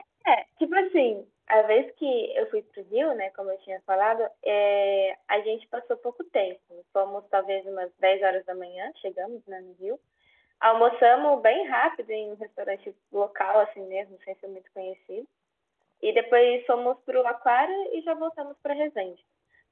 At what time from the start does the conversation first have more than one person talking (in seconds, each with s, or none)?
none